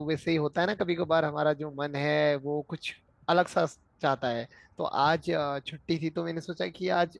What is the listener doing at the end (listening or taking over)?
listening